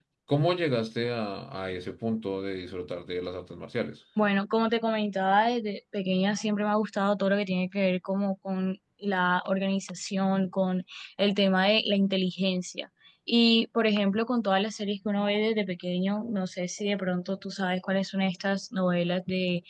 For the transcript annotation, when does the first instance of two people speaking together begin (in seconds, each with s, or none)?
none